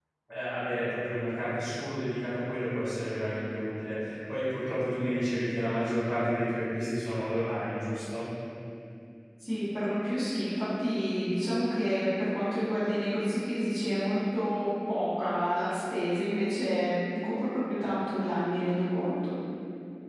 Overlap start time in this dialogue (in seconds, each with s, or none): none